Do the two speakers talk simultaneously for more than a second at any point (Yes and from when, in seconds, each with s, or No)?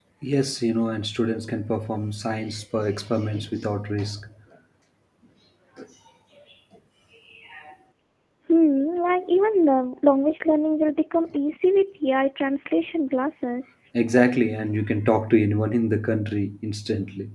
No